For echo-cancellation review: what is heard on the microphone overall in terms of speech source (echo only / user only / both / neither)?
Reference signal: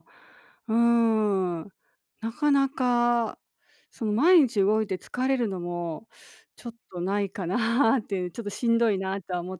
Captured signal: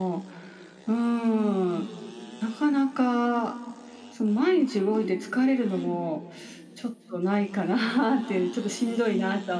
echo only